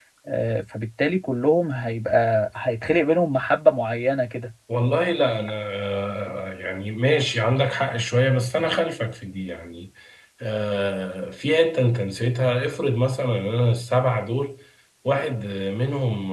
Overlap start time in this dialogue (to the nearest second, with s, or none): none